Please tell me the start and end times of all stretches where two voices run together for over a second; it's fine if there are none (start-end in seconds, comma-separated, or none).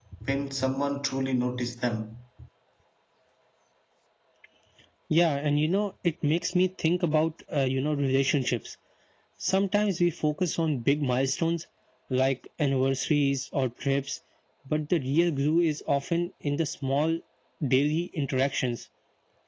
none